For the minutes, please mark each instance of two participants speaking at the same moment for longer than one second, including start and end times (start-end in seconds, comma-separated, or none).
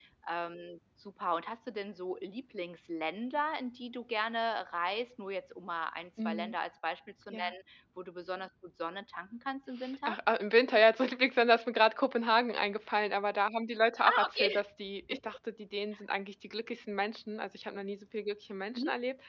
none